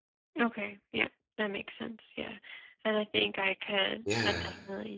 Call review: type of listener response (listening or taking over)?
listening